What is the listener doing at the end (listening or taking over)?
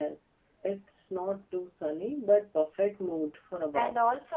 taking over